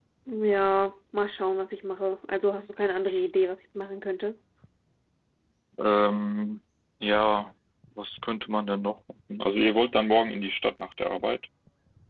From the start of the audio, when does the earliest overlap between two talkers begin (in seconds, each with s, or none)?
none